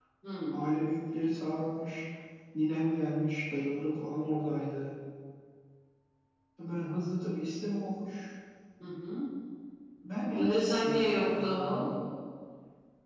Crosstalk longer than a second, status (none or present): present